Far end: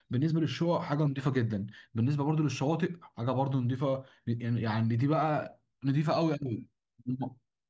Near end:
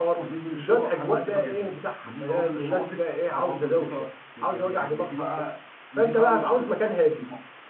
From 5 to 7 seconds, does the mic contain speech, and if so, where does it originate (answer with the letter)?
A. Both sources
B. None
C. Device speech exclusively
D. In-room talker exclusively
A